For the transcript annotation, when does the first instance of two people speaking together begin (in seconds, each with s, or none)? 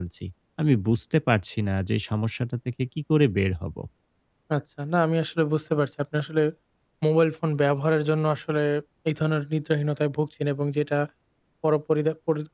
none